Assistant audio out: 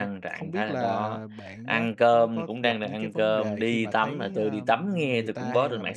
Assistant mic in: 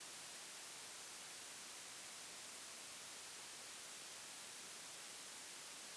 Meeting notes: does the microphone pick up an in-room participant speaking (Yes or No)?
No